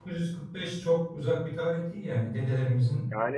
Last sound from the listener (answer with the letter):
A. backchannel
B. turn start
B